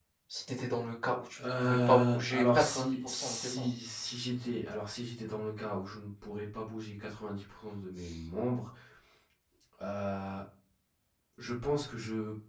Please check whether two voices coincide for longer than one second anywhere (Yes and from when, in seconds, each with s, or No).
Yes, from 1.4 s